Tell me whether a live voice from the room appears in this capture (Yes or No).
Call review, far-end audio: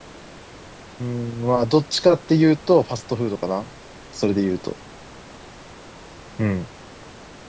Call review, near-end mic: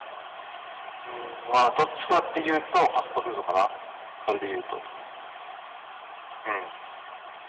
No